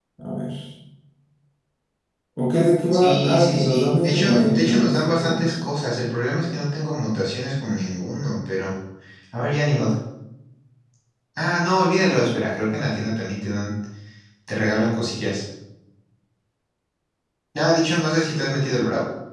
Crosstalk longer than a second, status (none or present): present